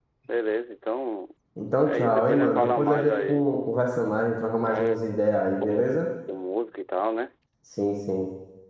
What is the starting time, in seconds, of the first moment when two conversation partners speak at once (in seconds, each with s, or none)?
1.9 s